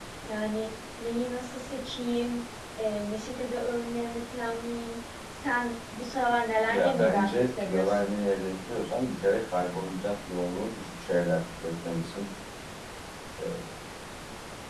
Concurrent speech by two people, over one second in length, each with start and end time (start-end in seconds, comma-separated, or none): 6.7-8.1